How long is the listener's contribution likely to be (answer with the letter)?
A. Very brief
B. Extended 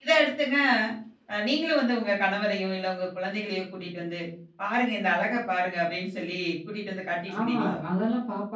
B